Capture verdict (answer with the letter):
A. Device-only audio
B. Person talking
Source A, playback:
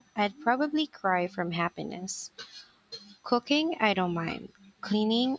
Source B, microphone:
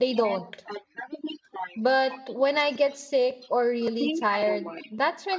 B